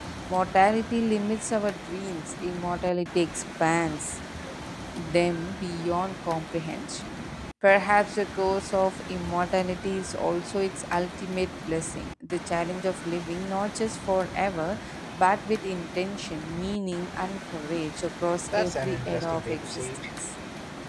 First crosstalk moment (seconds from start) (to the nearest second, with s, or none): 19 s